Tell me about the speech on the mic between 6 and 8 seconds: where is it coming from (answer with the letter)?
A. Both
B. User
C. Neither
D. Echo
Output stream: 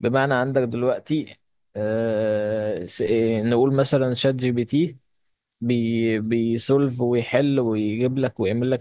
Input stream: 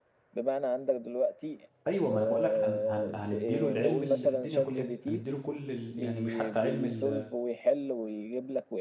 A